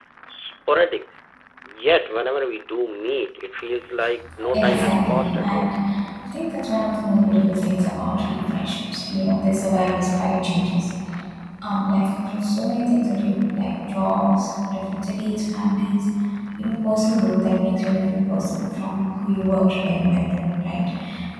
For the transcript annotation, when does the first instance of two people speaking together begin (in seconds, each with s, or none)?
4.4 s